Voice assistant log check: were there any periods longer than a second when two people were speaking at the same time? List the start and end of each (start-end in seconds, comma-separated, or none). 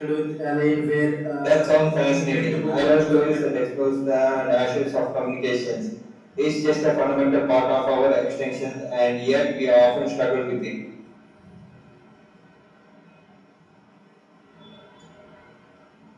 2.1-3.5